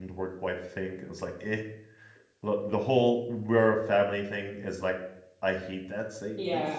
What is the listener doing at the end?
taking over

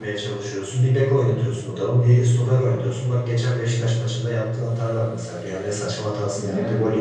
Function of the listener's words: listening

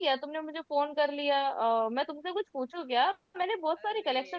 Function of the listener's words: taking over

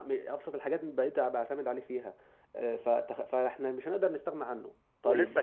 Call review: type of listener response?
taking over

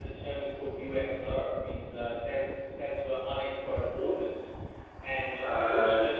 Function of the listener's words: listening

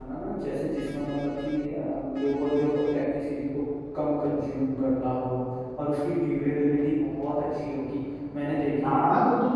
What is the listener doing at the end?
taking over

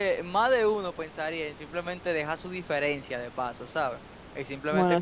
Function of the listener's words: listening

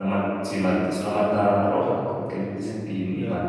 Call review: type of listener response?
taking over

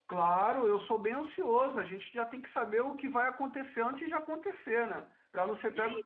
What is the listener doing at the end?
taking over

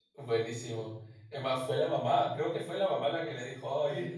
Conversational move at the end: listening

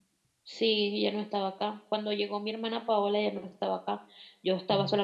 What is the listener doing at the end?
listening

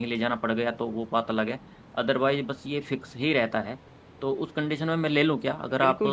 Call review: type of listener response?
taking over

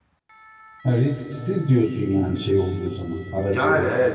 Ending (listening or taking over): taking over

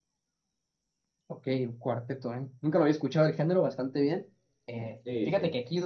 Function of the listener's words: listening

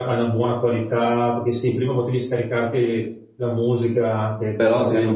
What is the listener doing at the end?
listening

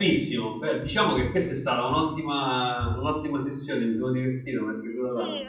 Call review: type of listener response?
taking over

